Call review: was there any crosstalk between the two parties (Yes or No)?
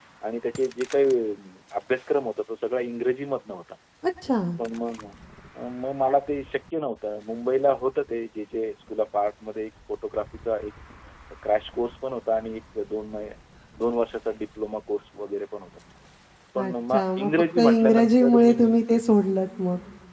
Yes